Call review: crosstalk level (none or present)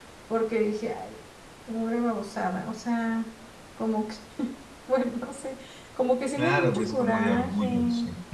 present